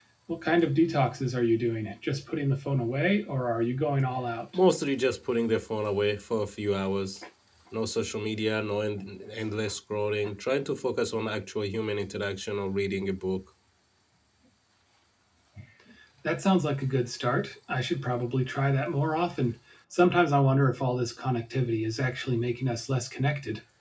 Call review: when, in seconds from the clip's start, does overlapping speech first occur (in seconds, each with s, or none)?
none